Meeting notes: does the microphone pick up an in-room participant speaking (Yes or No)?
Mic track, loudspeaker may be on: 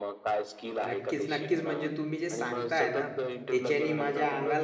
Yes